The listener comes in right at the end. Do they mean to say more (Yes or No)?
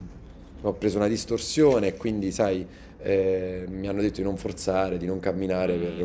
No